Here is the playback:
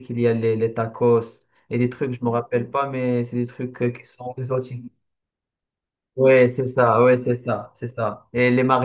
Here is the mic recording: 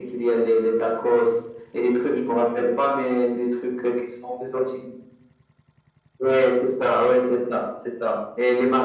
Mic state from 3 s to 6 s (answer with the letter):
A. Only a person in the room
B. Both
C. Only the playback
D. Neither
C